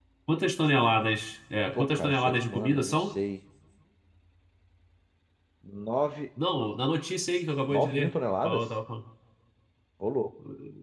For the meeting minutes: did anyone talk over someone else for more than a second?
Yes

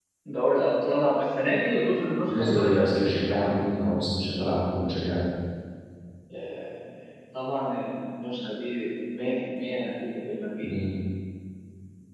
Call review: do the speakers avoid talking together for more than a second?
No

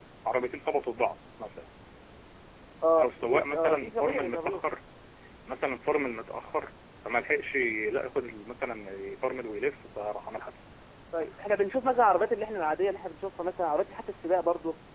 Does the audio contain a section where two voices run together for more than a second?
Yes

